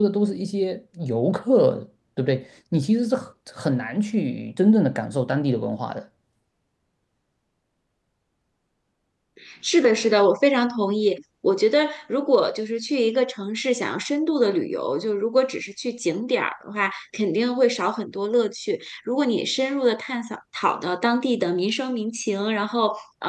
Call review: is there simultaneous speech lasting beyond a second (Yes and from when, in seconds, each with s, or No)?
No